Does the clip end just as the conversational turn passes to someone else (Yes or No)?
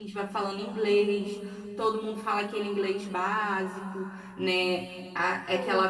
No